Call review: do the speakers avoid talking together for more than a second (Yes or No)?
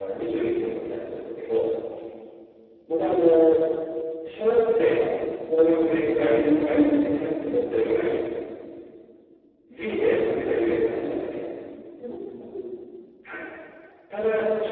No